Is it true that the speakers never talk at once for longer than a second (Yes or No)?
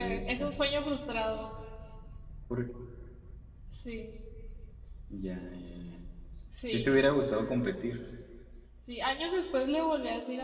Yes